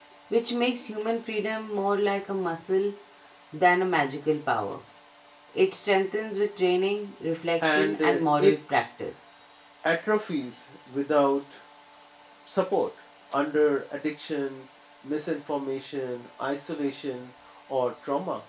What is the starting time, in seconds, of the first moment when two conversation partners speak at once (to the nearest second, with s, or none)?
8 s